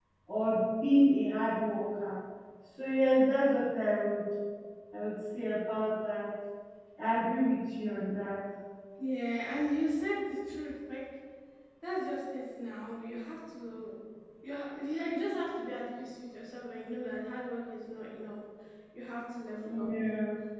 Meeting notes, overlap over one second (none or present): none